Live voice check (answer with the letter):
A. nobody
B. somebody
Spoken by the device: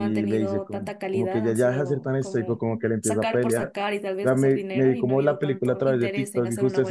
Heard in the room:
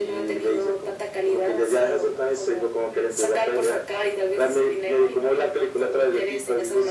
A